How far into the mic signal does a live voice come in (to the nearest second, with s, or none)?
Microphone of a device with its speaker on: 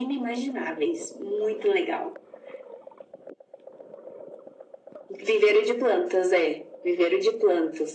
none